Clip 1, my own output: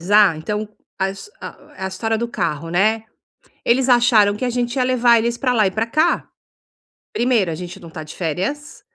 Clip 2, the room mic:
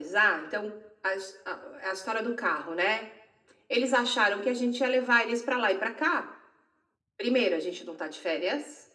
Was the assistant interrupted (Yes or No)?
No